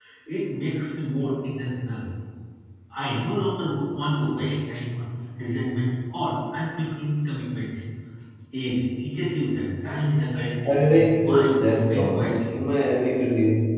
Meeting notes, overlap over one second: present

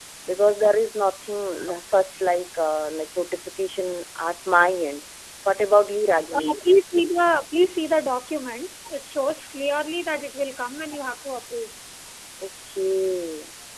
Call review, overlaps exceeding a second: none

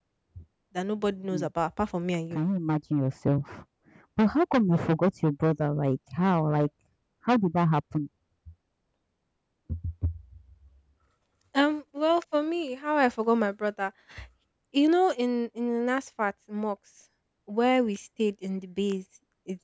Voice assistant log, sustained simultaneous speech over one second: none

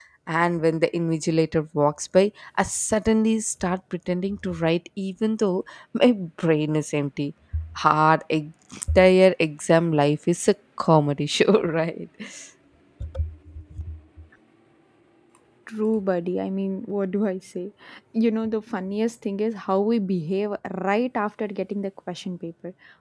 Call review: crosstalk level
none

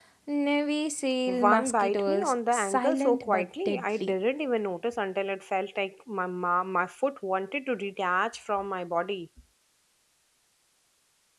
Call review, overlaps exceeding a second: present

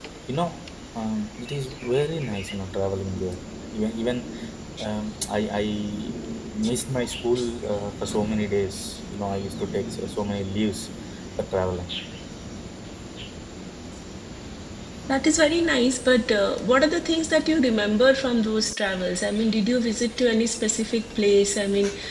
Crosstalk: none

